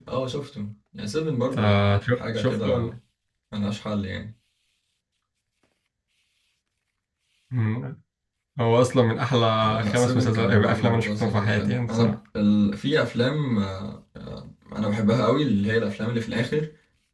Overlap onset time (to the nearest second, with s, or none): 2 s